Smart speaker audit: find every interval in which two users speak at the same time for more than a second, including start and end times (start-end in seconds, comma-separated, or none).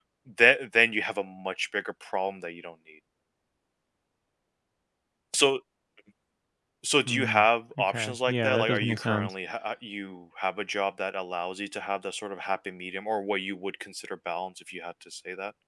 7.8-9.3